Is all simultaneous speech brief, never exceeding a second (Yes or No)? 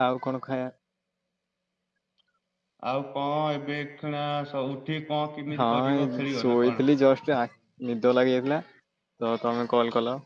No